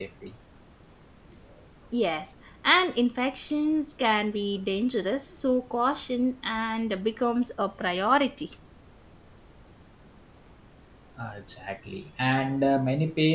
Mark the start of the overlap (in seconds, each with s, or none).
none